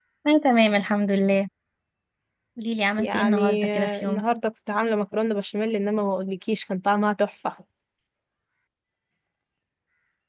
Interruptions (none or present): present